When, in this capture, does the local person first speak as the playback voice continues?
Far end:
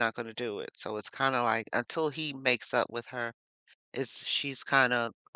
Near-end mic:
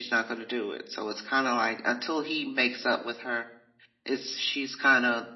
none

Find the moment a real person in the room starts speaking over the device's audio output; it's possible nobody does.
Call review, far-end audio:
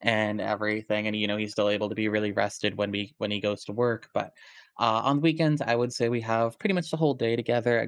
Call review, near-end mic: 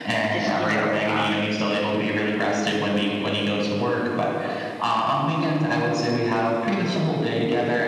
0.3 s

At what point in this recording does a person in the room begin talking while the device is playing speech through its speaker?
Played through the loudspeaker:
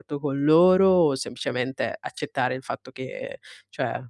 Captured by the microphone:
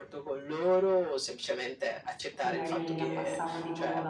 2.4 s

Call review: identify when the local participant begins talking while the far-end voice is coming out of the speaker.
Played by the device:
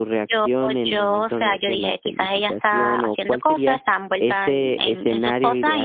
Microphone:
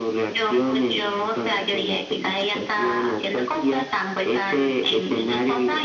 none

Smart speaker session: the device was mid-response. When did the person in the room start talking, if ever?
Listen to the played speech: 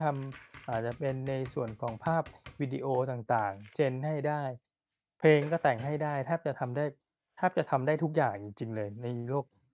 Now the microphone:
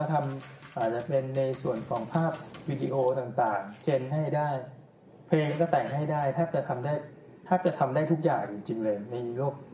none

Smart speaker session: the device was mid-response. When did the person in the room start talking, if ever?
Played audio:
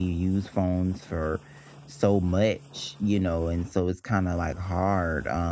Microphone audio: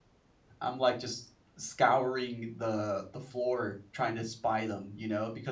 0.6 s

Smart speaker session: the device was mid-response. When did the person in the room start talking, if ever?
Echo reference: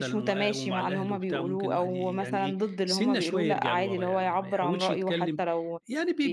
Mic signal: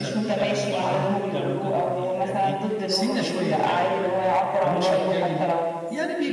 none

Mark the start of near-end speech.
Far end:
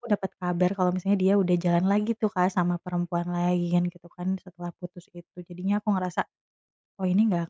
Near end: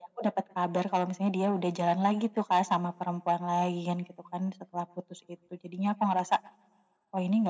none

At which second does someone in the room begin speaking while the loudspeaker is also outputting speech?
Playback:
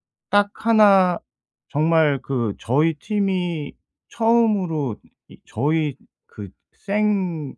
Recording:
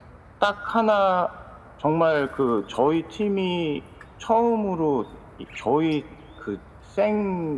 none

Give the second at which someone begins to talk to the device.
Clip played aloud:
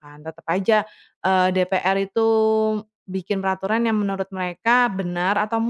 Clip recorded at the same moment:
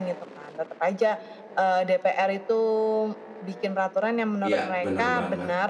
4.4 s

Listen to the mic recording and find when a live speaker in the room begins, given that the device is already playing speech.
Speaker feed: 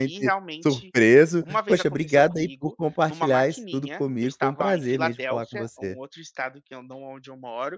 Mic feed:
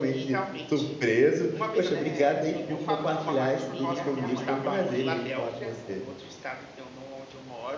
1.8 s

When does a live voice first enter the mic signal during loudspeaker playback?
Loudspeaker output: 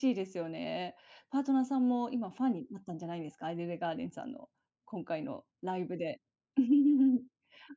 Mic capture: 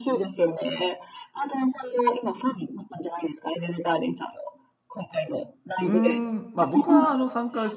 5.8 s

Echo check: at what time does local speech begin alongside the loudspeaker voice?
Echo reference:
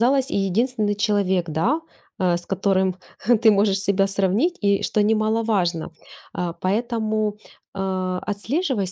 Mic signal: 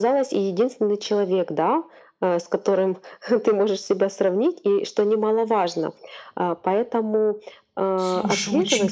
8.0 s

